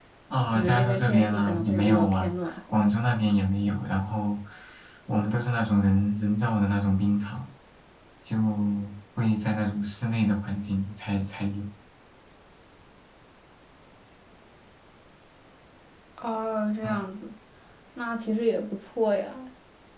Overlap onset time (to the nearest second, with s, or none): 1 s